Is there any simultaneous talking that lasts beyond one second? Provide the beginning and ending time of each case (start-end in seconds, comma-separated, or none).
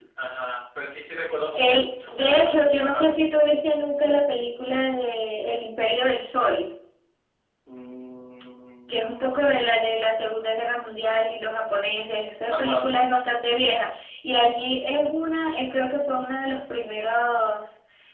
1.6-3.1